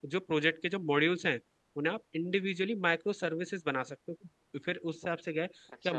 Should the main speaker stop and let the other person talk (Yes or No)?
No